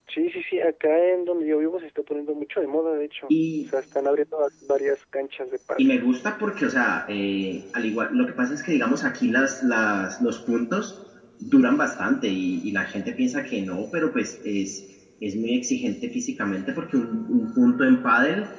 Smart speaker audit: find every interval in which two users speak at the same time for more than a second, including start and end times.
none

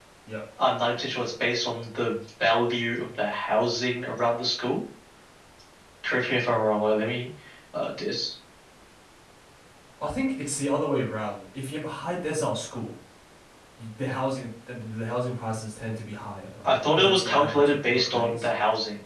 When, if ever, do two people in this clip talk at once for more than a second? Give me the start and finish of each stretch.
16.6-18.5

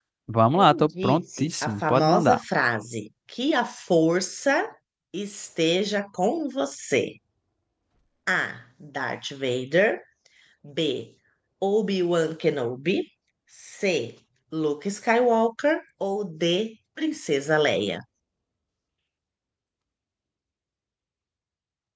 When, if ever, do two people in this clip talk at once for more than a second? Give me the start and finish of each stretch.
0.6-2.4

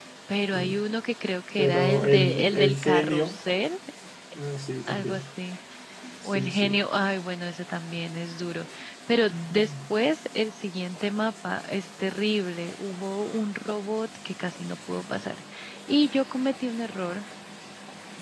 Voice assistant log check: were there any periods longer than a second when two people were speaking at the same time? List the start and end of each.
1.6-3.3

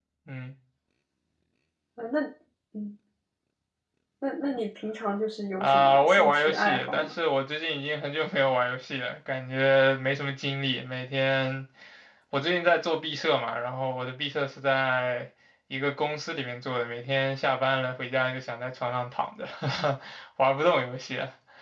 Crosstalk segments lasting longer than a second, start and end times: 5.6-7.1

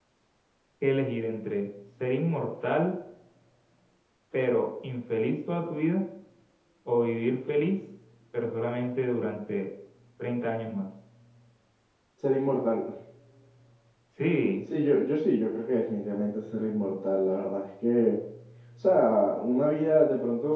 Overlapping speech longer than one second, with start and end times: none

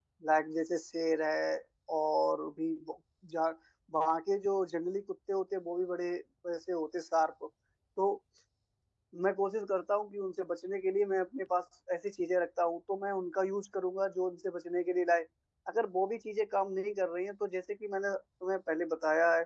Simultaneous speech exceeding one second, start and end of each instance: none

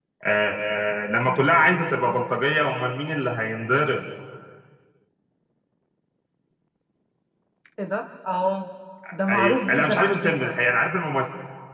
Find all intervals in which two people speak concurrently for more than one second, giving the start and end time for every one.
9.3-10.6

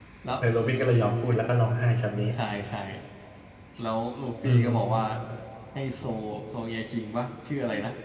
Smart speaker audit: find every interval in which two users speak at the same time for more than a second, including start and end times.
none

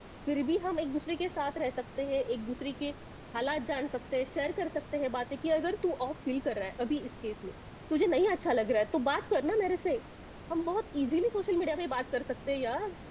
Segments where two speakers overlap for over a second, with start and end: none

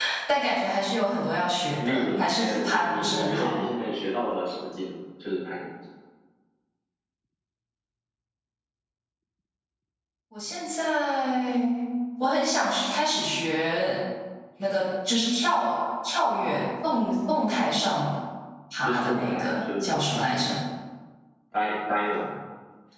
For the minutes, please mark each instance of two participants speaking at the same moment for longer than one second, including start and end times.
1.8-3.5, 18.8-20.2

